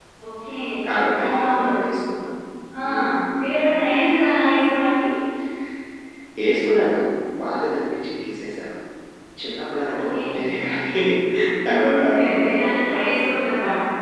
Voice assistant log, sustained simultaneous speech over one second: present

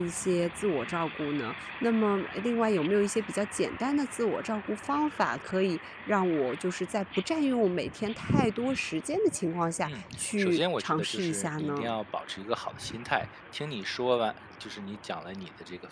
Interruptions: present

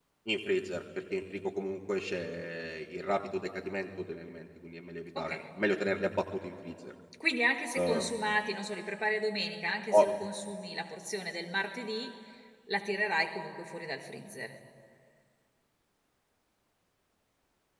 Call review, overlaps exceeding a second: none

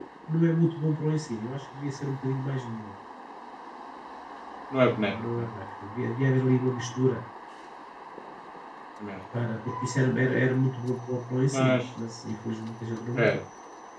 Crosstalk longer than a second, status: none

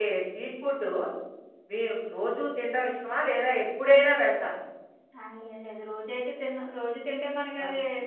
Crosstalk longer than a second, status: none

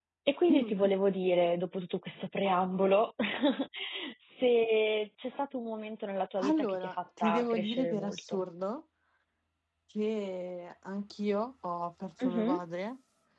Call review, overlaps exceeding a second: present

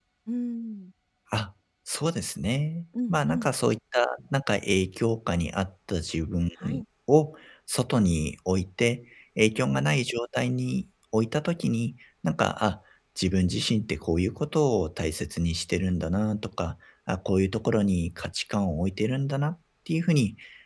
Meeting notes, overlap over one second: none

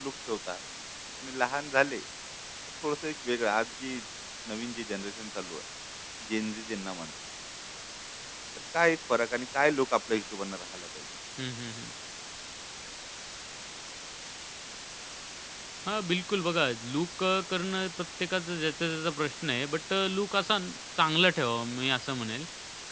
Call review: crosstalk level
none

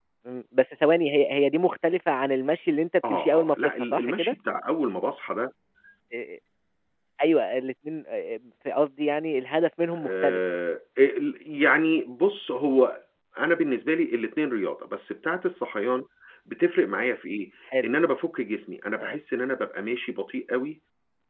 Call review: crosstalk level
present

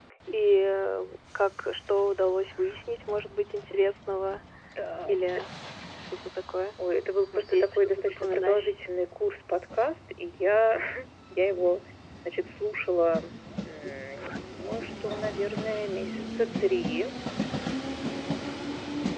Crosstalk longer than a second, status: present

